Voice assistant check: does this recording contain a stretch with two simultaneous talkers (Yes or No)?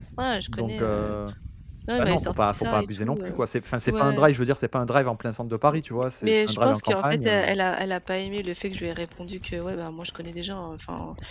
Yes